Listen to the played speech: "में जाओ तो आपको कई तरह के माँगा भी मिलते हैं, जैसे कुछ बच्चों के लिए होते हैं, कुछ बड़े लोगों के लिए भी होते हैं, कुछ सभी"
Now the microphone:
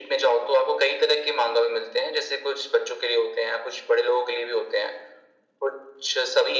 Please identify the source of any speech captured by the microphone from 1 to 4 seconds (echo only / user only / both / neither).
echo only